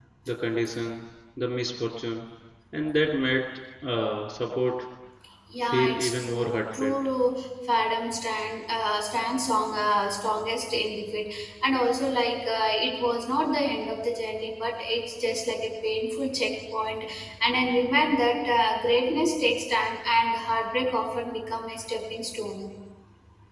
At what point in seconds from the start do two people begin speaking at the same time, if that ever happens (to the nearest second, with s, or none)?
6 s